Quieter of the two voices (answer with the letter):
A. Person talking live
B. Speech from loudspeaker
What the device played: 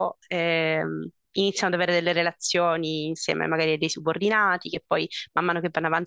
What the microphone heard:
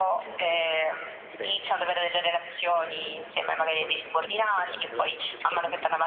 A